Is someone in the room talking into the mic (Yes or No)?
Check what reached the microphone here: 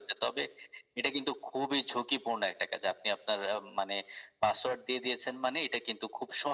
No